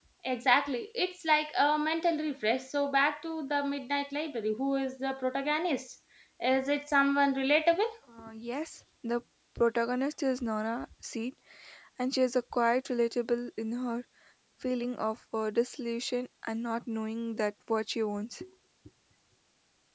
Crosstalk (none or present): none